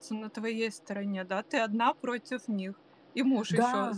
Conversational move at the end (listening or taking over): taking over